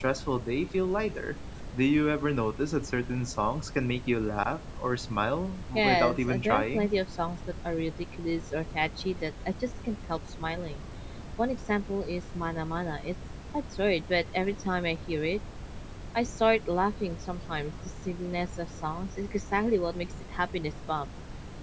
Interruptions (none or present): present